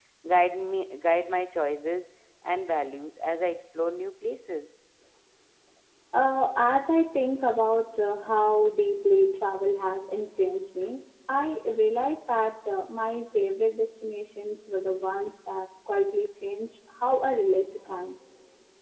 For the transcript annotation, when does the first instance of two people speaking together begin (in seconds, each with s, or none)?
none